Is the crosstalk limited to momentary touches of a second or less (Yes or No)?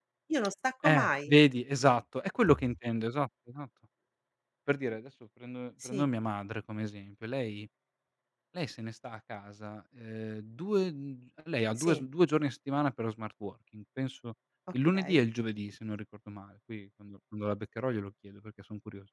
Yes